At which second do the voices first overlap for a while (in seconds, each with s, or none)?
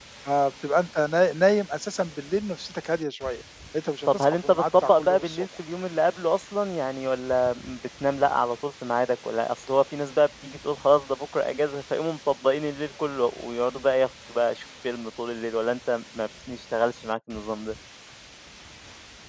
4.1 s